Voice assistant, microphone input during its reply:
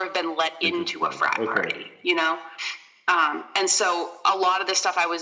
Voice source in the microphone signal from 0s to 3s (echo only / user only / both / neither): both